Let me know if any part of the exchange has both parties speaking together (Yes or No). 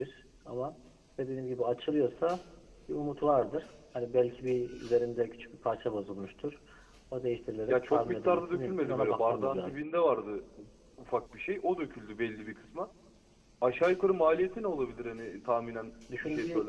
Yes